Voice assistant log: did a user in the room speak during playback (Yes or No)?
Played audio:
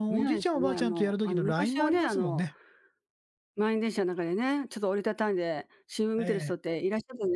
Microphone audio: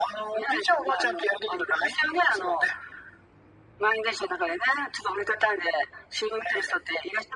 No